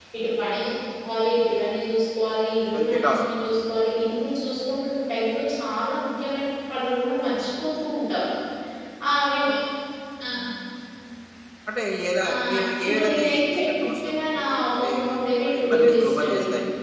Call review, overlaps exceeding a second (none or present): present